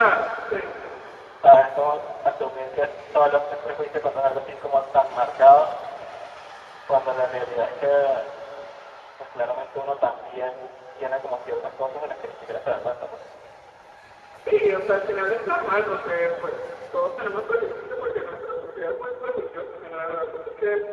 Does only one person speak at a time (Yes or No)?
Yes